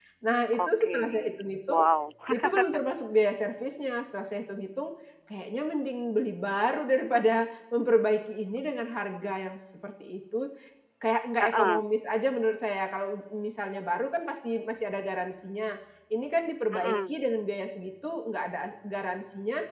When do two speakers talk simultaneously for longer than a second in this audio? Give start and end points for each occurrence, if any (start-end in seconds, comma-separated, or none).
0.5-1.8